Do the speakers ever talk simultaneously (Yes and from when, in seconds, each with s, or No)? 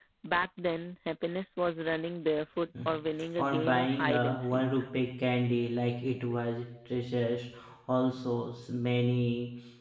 Yes, from 3.4 s